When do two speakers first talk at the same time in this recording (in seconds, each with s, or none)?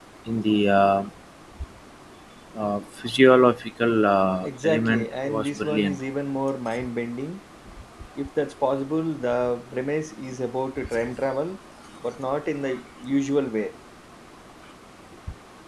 4.3 s